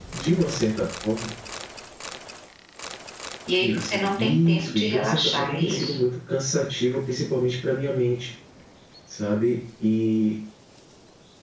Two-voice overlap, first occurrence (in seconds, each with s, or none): 3.6 s